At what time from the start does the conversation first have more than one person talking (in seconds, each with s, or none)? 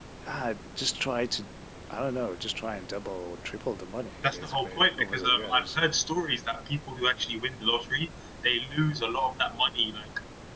4.2 s